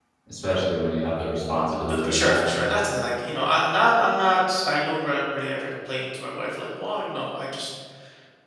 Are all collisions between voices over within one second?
Yes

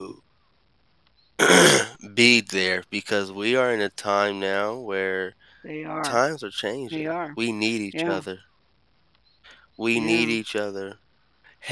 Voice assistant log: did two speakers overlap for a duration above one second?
No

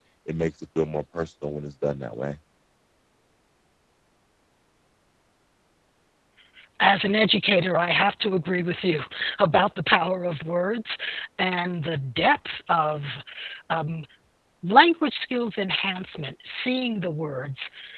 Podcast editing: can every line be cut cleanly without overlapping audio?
Yes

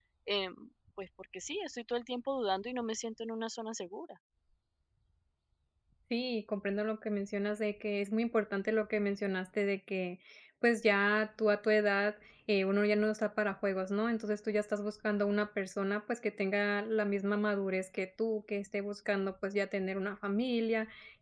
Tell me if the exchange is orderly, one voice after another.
Yes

